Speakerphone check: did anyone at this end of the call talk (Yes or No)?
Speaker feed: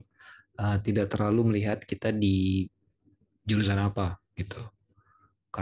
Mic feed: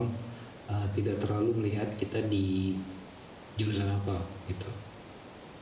No